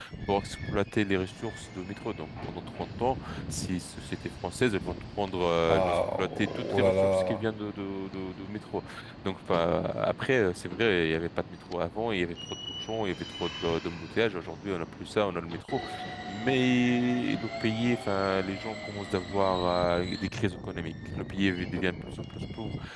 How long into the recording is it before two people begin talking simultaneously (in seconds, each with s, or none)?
5.6 s